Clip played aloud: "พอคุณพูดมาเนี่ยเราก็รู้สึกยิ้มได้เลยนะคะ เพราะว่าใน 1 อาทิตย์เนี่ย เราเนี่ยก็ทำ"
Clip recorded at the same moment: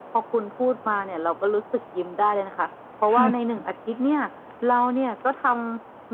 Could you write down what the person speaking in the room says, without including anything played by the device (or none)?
พลาดค่ะ